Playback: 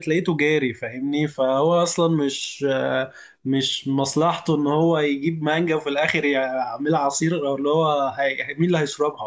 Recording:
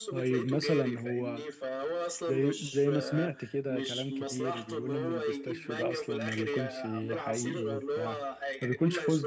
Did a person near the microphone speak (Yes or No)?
Yes